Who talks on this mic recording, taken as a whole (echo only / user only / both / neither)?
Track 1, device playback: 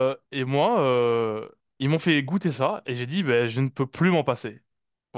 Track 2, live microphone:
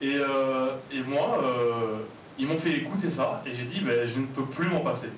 echo only